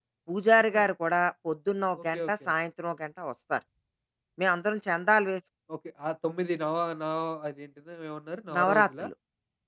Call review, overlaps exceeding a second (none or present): none